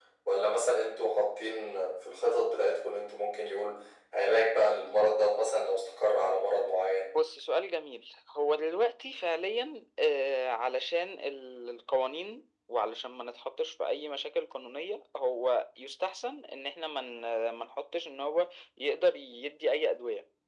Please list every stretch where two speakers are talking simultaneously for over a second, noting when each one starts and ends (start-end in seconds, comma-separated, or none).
none